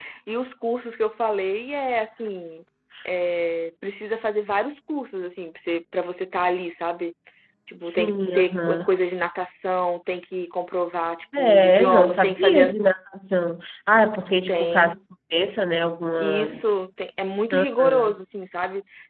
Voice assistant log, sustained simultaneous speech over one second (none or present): present